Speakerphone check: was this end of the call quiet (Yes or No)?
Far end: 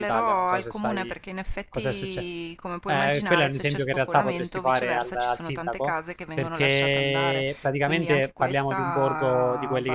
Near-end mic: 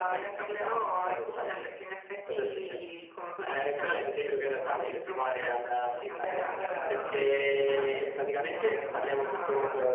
No